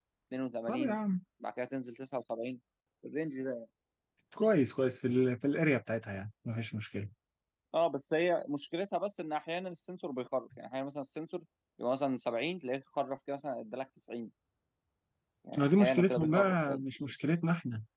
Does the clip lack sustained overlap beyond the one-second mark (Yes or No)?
No